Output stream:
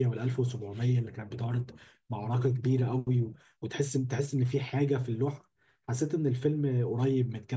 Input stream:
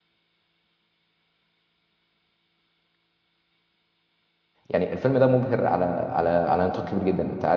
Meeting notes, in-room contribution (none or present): present